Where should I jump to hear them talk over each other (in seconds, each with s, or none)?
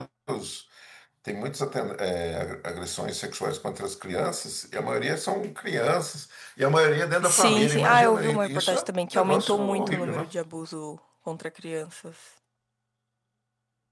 7.2 s